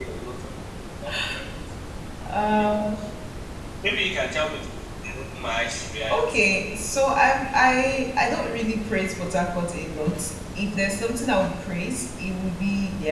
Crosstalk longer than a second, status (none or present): none